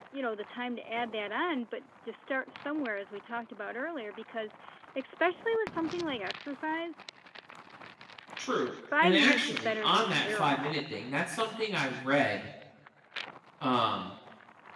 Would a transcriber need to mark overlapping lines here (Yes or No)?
Yes